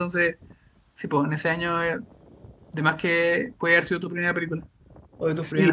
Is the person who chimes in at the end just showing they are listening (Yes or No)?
No